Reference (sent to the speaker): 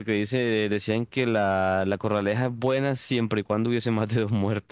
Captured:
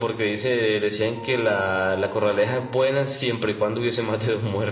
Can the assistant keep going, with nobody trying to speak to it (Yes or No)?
Yes